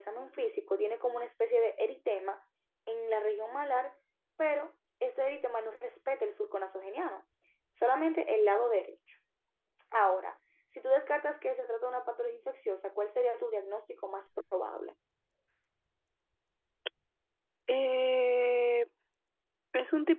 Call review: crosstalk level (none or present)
none